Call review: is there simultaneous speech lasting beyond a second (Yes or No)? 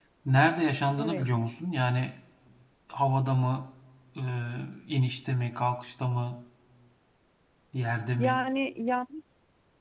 No